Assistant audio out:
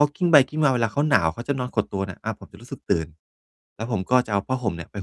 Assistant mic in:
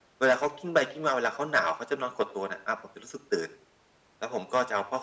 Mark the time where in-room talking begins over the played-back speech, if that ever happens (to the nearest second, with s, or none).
none